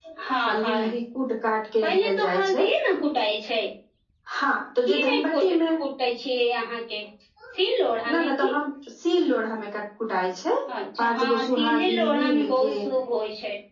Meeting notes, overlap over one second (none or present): present